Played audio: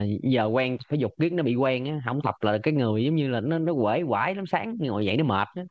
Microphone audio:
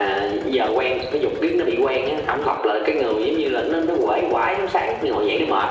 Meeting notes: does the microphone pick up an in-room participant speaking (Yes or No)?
No